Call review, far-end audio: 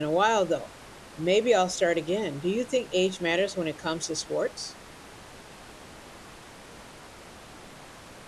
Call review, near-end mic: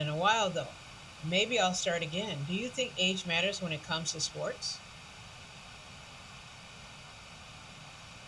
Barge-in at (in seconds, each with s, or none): none